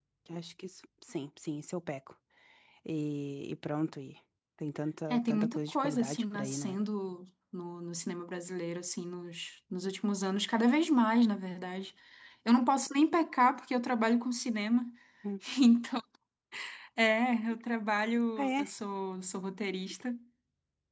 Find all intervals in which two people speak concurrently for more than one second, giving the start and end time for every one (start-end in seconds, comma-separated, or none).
5.1-6.8